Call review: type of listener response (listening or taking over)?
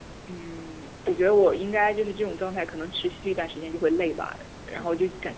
listening